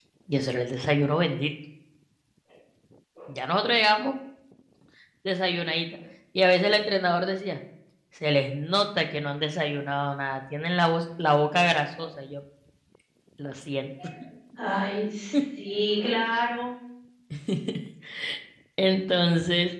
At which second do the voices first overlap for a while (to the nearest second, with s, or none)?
none